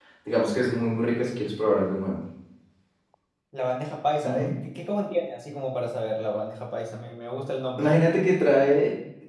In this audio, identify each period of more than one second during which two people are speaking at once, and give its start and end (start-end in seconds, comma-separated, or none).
none